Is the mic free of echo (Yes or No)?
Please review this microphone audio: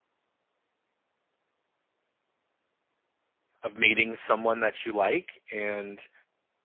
Yes